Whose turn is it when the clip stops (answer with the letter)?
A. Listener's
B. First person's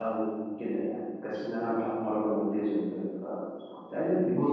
B